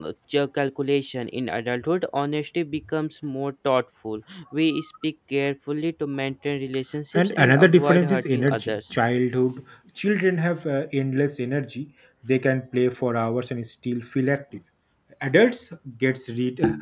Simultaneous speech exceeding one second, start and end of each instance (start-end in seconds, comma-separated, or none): 7.1-9.0